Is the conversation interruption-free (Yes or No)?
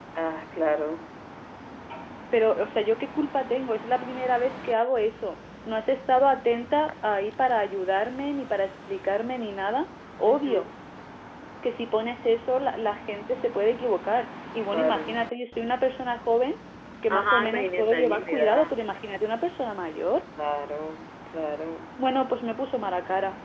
No